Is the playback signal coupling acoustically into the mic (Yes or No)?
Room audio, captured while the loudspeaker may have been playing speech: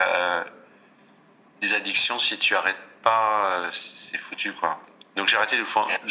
Yes